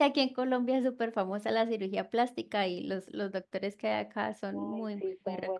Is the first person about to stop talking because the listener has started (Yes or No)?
Yes